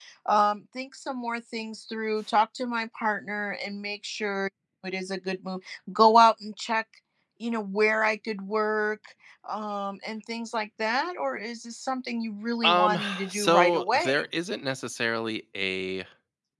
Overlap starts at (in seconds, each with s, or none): 12.6 s